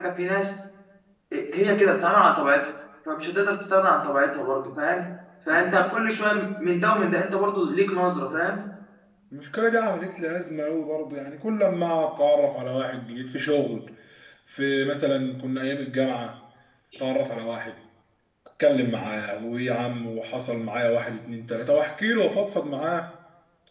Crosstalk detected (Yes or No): No